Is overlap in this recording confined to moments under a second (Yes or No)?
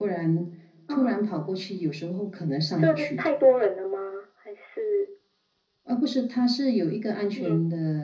Yes